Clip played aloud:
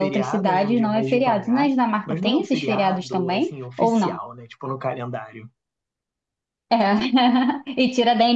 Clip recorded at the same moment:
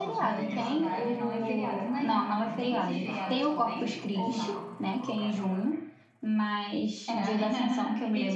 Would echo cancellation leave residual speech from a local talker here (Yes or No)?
Yes